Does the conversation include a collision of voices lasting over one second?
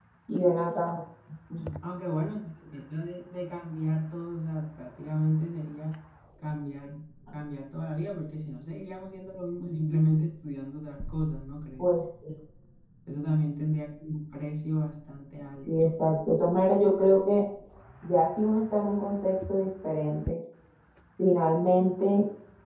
No

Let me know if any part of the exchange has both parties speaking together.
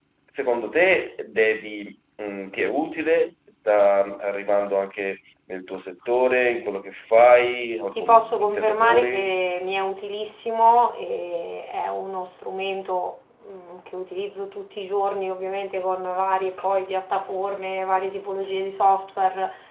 Yes, from 7.9 s

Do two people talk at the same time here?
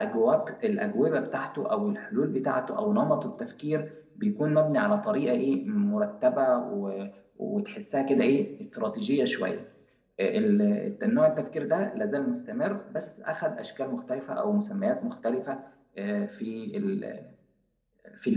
No

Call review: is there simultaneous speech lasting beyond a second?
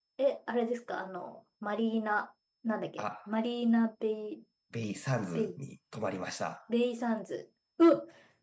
No

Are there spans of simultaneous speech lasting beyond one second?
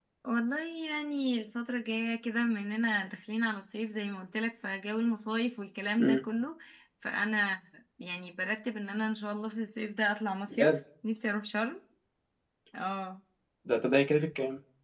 No

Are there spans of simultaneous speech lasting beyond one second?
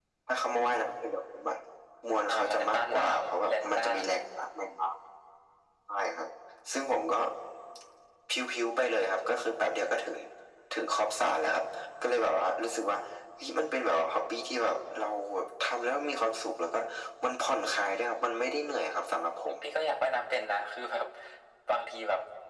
Yes, from 2.2 s

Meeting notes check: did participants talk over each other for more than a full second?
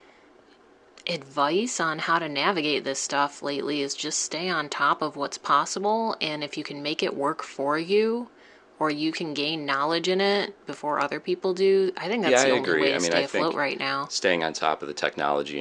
Yes, from 12.2 s

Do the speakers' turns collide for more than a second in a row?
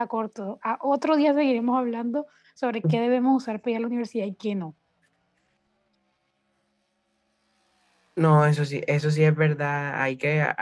No

